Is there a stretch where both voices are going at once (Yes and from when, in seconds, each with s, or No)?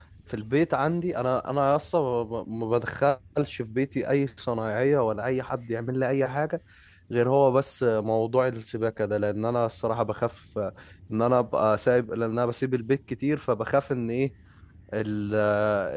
No